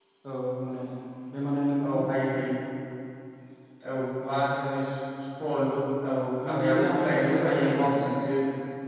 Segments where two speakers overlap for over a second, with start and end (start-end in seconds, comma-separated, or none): 6.5-7.8